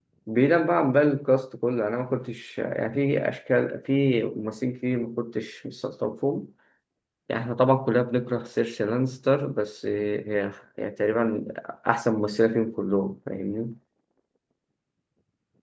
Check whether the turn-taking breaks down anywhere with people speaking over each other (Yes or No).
No